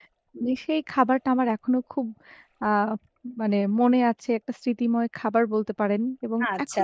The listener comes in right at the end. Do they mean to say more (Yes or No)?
Yes